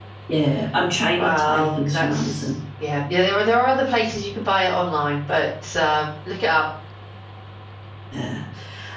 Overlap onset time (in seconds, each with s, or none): 1.1 s